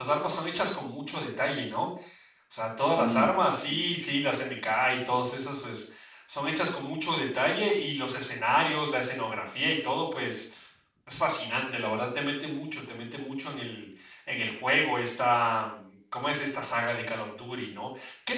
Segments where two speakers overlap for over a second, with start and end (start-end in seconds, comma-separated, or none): 2.8-4.0